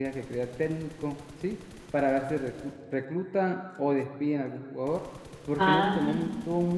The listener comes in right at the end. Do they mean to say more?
No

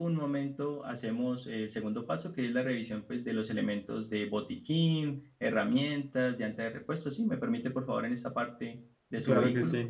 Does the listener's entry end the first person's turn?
Yes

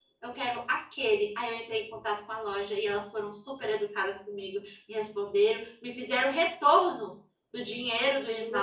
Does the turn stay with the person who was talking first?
Yes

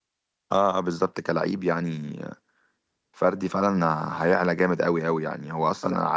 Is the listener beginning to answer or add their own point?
No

